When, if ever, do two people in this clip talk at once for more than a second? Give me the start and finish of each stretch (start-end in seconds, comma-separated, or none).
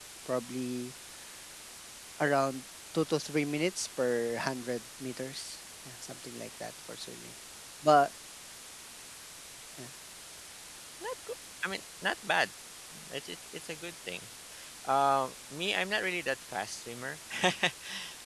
none